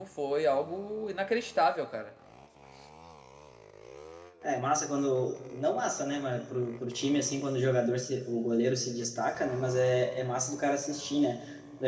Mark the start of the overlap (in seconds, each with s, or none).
none